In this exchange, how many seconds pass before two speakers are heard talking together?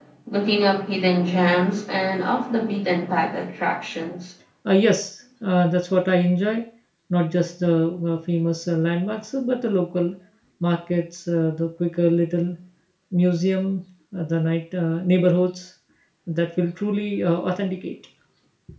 none

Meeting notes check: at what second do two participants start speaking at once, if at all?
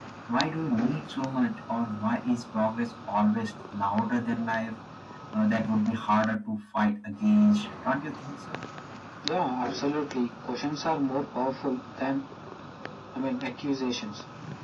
none

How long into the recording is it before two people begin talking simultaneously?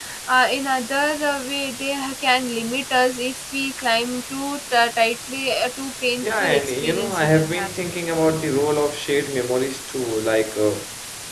6.2 s

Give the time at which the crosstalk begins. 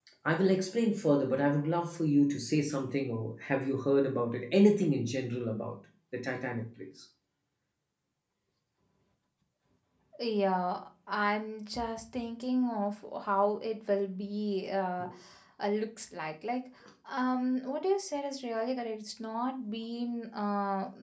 none

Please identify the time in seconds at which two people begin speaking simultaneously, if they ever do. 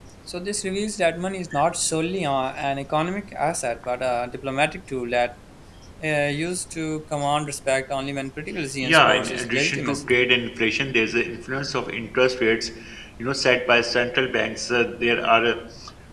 8.8 s

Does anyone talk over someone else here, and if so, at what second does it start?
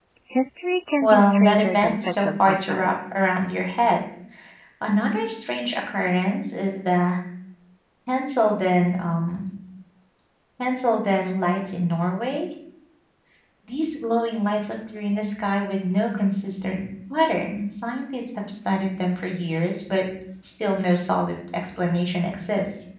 1.0 s

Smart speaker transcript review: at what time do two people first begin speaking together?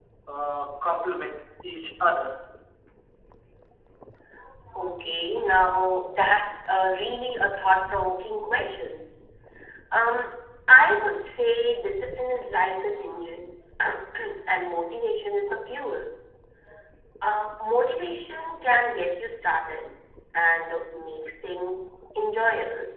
none

